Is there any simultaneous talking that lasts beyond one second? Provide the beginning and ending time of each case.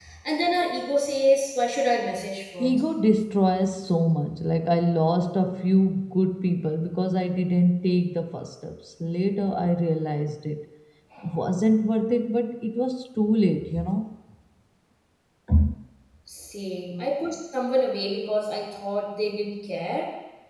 none

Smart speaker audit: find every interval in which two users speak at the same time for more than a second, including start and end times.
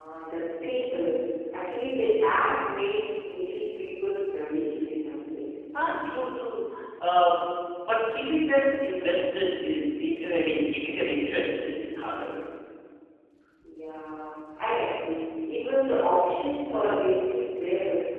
none

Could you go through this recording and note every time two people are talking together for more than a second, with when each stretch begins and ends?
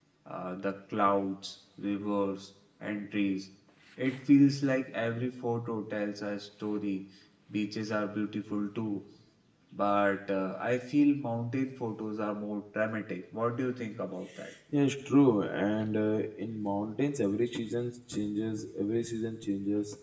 none

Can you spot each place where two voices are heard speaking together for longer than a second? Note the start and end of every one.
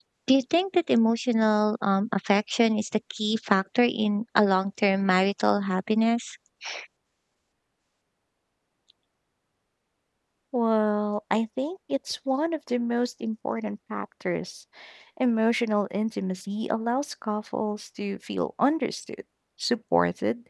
none

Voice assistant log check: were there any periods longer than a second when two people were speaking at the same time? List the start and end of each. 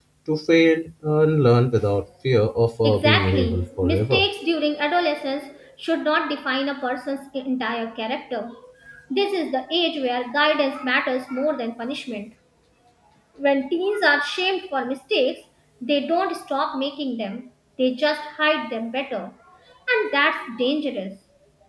2.8-4.3

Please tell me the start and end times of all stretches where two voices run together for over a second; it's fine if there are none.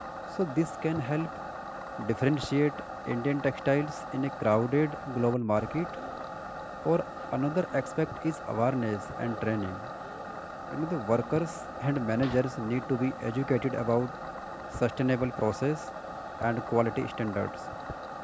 none

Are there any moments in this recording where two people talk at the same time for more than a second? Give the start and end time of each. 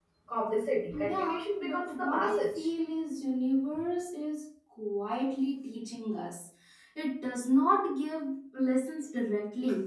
0.9-2.7

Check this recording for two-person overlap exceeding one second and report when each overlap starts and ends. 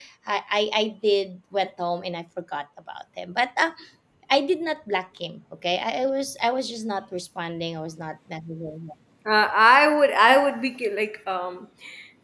none

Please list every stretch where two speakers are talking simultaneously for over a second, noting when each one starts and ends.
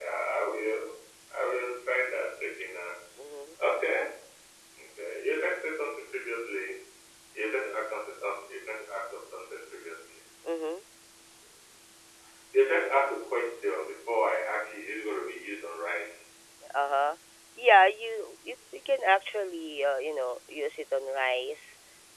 none

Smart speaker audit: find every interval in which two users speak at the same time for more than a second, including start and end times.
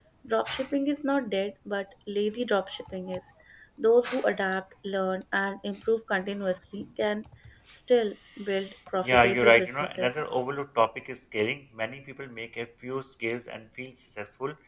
9.0-10.3

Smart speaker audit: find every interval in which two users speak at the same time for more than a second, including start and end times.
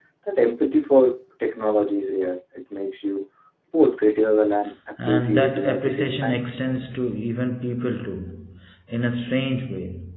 5.1-6.5

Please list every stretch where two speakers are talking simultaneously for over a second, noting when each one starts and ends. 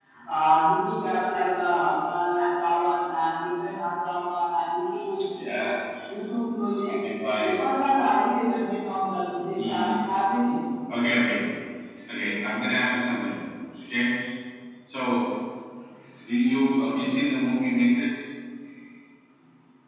none

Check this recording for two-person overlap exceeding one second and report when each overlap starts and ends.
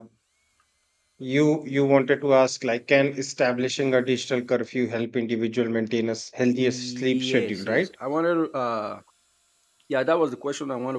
6.5-7.9

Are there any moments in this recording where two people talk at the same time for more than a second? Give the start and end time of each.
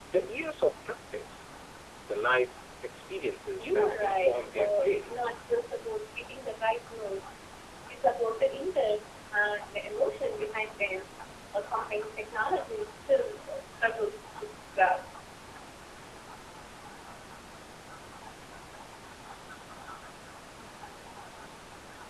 3.6-5.1

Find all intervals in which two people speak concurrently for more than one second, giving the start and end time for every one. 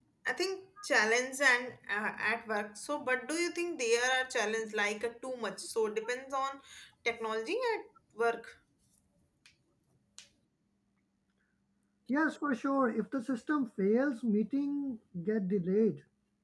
none

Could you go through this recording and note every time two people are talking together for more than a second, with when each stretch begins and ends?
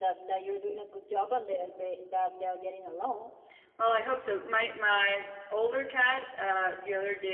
none

